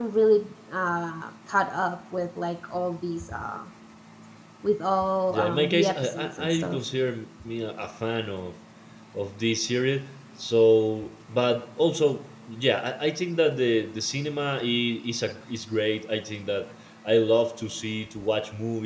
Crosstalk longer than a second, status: present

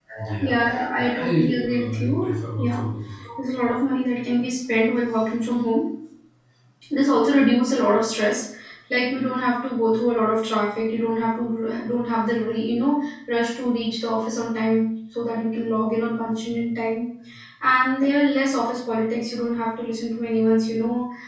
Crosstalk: present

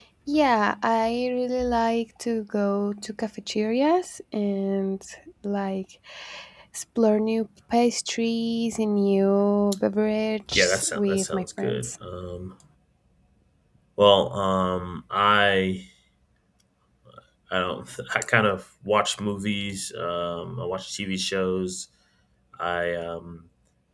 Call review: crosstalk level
present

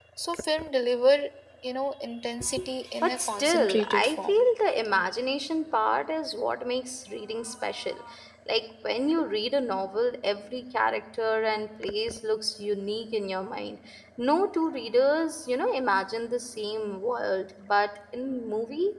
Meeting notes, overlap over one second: present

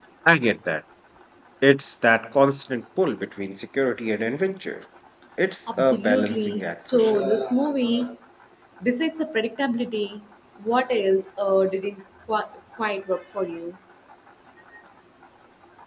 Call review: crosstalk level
present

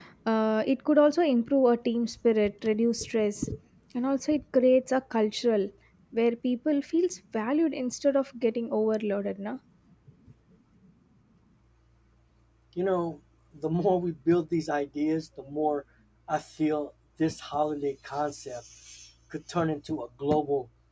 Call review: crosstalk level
none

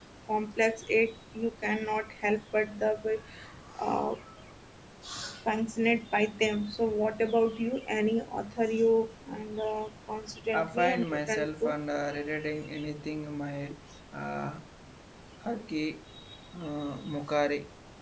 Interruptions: present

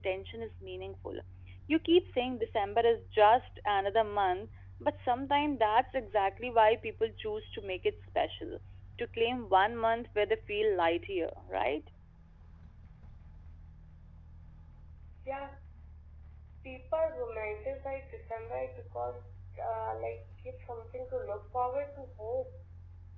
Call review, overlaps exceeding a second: none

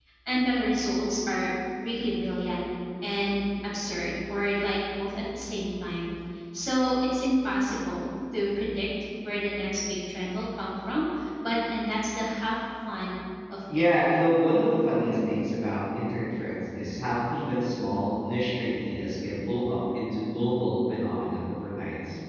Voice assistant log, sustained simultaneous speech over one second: none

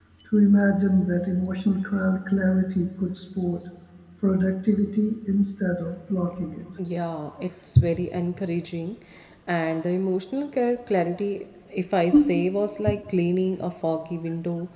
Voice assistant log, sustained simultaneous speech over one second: none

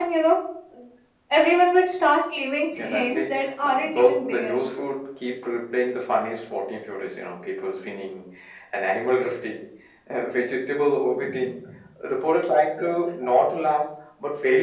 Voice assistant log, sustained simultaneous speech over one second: present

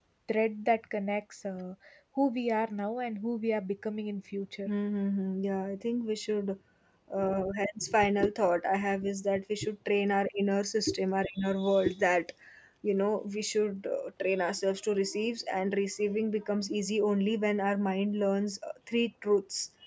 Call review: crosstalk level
none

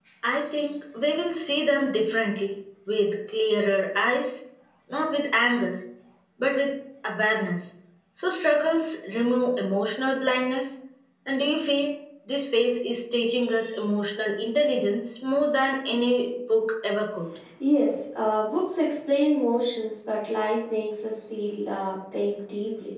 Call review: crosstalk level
none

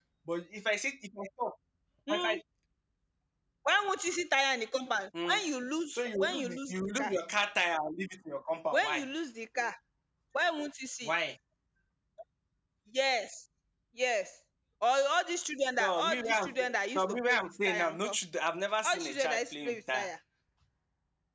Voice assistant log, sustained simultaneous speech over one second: present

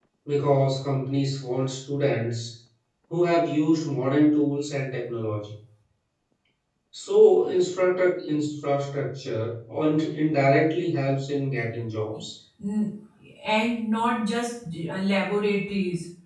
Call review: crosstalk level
none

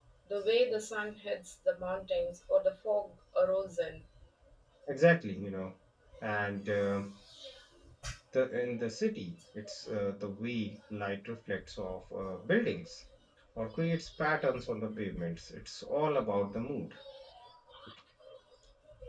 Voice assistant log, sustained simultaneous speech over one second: none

